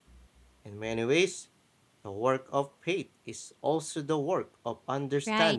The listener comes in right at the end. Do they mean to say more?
Yes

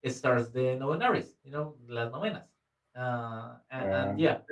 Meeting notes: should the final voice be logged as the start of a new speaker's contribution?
No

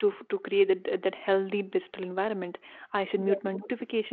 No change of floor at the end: Yes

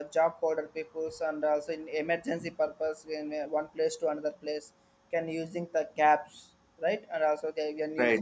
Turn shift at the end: No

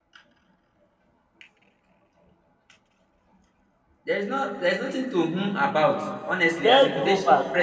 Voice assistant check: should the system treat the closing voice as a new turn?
Yes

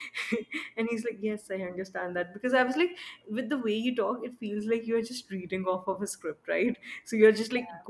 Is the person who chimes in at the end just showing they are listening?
Yes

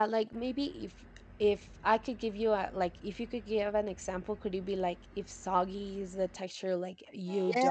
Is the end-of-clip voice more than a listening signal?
Yes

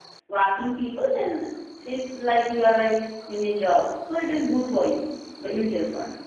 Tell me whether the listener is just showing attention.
No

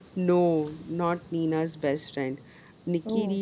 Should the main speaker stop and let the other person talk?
No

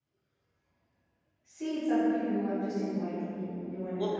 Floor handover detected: Yes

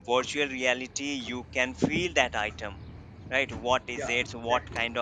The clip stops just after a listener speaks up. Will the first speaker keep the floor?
Yes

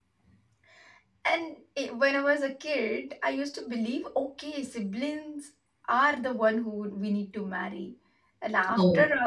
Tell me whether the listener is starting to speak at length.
No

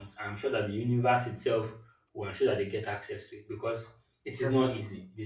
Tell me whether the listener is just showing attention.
Yes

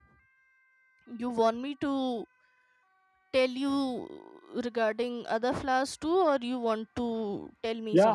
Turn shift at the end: Yes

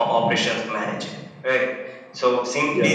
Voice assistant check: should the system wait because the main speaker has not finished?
Yes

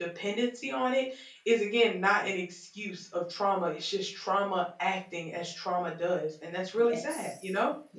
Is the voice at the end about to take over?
Yes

